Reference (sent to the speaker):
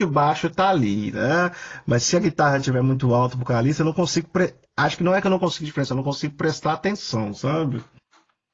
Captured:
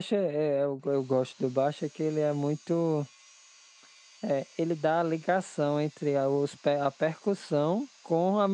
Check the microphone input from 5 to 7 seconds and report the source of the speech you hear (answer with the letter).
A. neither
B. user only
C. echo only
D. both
B